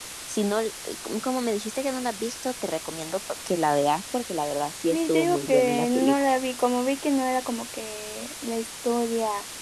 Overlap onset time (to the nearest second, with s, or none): 5 s